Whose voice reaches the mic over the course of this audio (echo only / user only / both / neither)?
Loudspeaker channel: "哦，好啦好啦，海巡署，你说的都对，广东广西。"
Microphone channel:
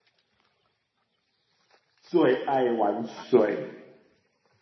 user only